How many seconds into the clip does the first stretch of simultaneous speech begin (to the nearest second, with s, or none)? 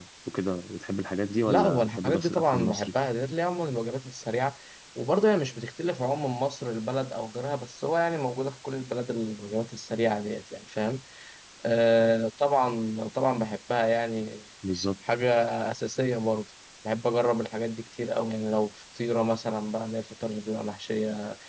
1 s